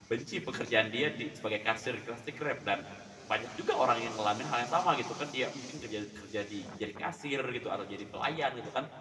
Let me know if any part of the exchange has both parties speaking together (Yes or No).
No